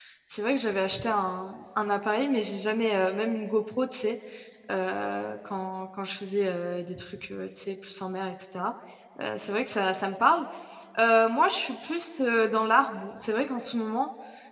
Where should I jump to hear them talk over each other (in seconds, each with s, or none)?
none